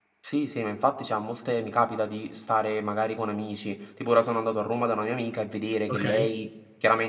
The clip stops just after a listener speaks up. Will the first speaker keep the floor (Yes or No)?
Yes